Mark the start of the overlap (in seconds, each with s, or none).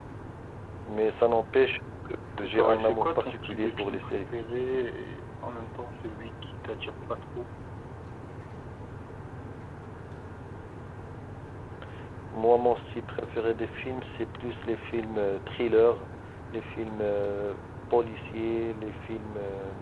2.4 s